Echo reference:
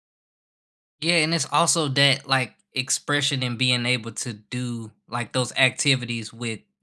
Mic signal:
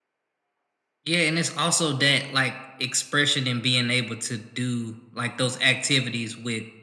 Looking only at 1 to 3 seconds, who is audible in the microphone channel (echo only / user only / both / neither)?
echo only